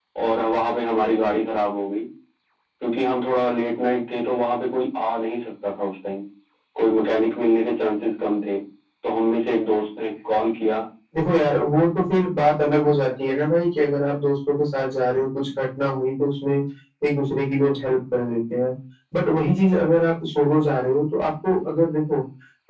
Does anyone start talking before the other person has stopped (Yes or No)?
No